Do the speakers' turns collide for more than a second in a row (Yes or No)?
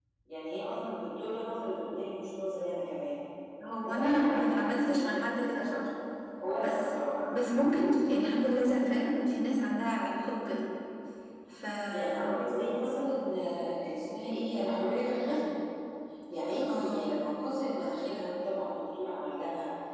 Yes